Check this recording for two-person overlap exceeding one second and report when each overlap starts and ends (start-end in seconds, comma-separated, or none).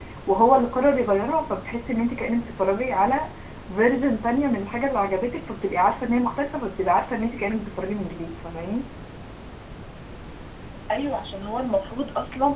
none